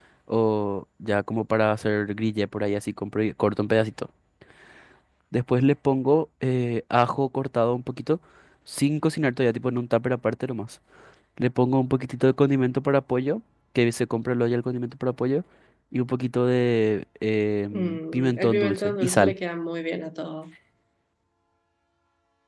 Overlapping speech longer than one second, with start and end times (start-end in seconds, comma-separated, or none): 17.7-19.3